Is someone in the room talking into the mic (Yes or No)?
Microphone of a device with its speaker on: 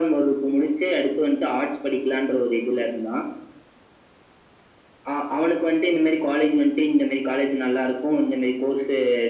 No